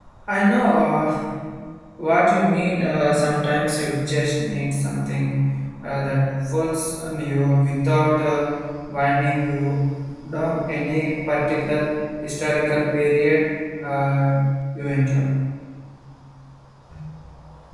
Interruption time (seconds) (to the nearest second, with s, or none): none